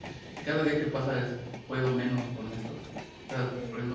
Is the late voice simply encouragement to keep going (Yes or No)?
Yes